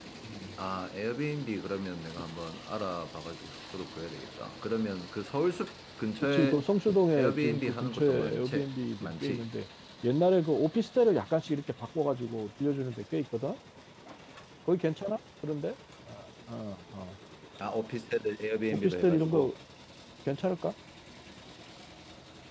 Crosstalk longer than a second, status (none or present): present